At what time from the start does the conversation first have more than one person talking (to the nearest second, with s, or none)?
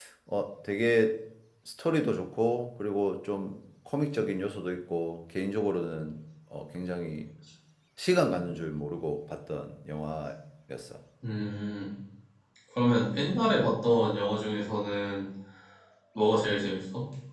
none